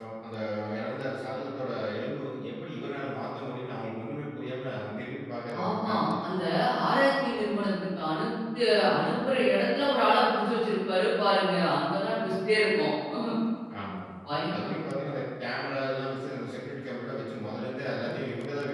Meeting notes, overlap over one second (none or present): none